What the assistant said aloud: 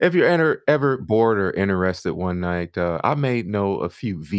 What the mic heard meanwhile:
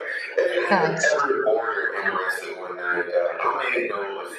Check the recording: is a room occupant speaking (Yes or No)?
Yes